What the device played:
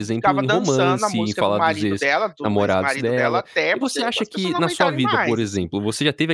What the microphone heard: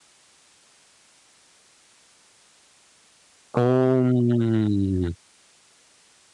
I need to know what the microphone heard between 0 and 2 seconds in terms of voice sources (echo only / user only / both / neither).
neither